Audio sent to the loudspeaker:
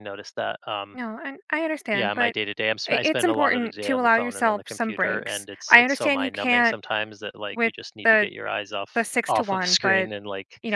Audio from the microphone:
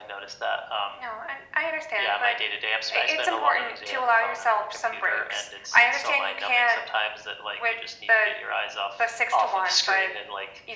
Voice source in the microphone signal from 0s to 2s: echo only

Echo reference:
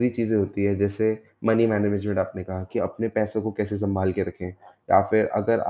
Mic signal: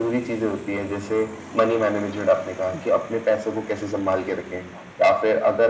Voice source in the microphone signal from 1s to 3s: echo only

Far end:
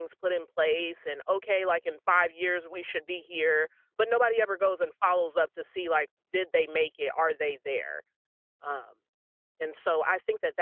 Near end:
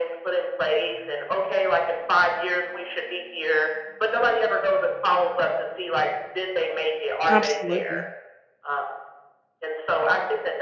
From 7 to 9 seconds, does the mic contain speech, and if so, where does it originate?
both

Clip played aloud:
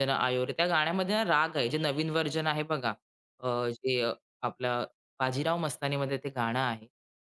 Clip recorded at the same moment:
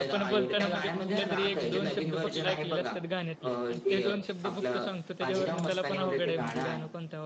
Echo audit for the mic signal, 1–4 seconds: both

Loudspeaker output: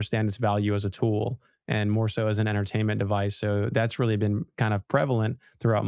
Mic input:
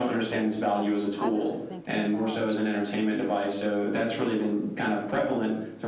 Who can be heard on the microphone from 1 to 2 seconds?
both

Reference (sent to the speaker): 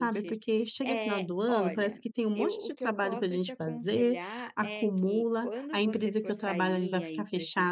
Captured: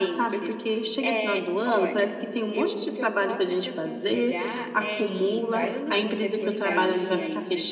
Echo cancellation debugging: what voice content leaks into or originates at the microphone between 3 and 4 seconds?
echo only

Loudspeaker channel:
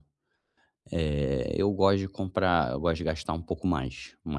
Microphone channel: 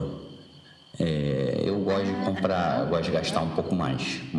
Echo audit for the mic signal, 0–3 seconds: both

